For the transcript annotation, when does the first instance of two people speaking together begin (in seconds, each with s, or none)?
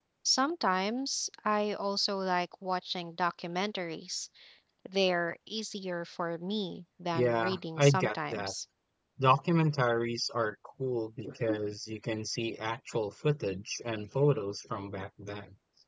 7.1 s